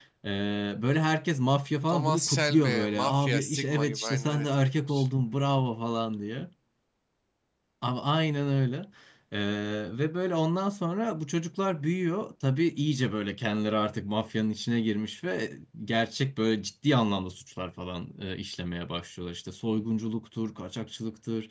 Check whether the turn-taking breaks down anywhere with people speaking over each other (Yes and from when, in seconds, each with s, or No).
Yes, from 1.9 s